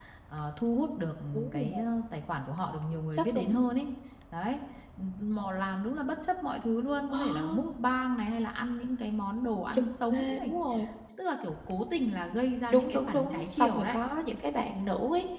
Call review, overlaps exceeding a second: present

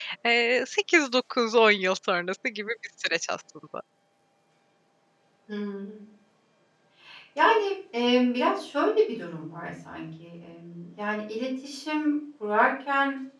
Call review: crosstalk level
none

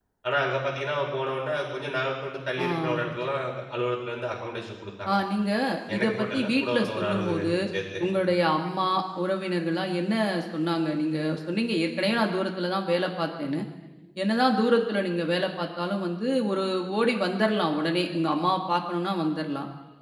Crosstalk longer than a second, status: present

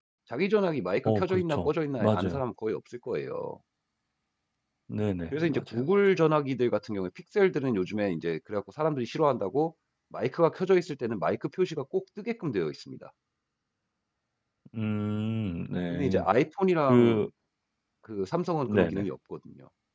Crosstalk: present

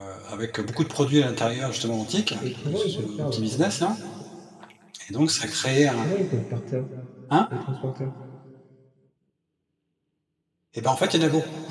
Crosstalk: present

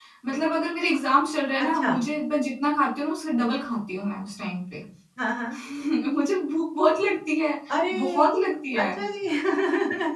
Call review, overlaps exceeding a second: none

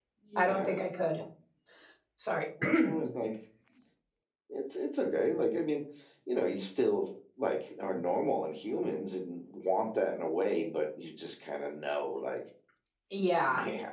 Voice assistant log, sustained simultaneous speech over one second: none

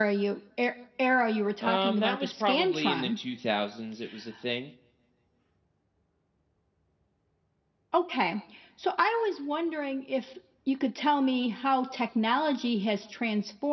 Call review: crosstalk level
present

